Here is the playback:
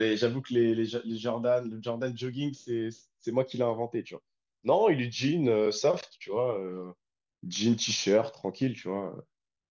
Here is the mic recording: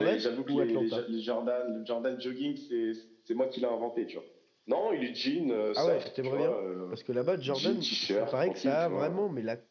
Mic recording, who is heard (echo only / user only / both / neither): both